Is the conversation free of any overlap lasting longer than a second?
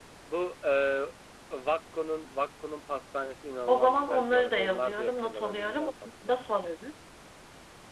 No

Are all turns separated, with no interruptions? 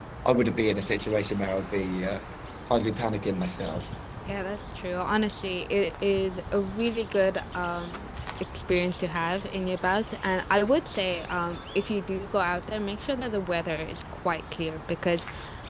Yes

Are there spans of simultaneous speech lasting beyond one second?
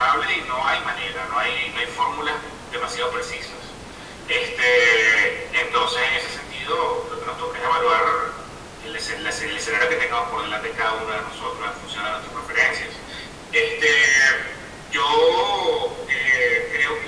No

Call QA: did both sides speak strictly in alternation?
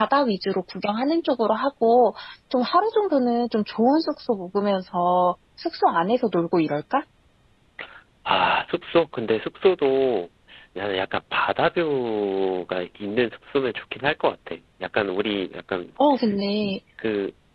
Yes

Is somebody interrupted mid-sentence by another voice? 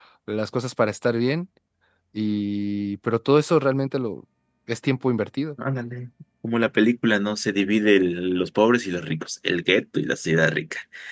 No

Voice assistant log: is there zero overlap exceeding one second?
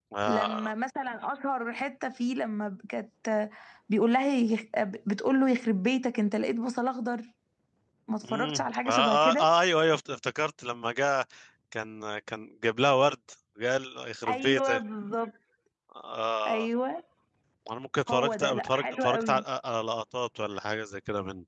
No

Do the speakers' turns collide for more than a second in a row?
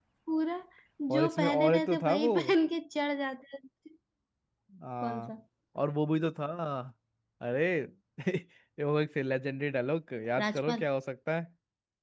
Yes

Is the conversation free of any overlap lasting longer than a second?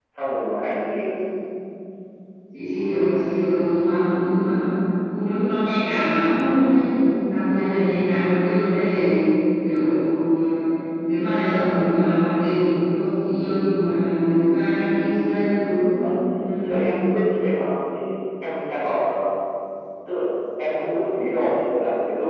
Yes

